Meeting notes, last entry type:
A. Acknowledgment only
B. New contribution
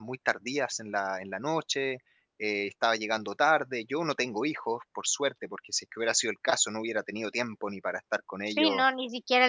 B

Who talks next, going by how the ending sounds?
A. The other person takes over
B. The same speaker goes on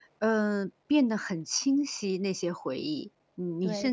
A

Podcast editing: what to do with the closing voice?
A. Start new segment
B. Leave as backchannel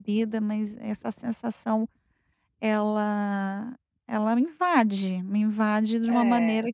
B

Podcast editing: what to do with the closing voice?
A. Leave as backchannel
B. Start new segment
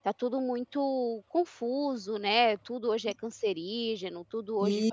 A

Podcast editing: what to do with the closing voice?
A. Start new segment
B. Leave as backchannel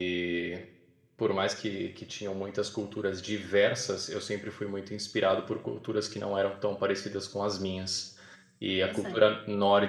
B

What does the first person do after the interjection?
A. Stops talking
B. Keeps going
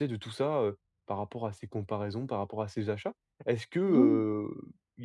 B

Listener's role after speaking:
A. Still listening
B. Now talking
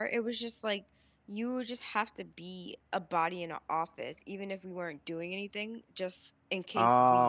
A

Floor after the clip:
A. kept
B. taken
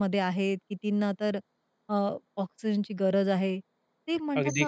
A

